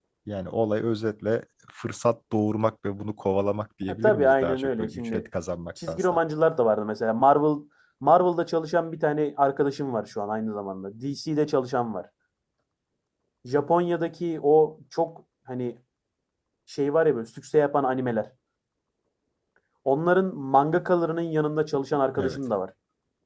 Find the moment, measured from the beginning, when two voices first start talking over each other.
4 s

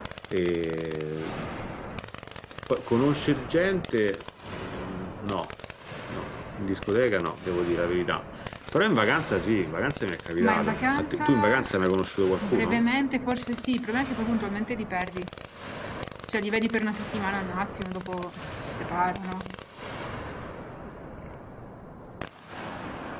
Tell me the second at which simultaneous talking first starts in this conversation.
10 s

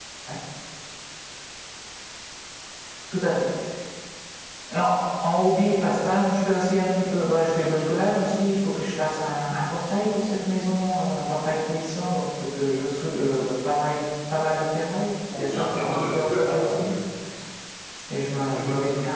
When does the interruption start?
15 s

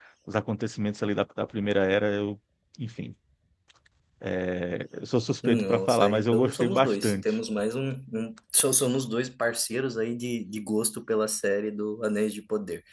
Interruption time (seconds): 5 s

